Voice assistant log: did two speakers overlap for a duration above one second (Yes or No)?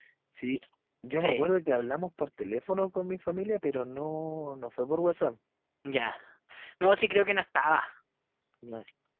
No